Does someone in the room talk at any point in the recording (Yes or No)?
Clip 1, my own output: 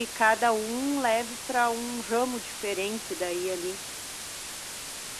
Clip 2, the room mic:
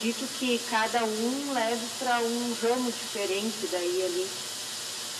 No